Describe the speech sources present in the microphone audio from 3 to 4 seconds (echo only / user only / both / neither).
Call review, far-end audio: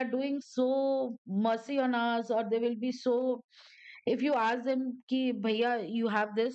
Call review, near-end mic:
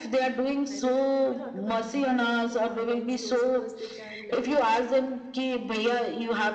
both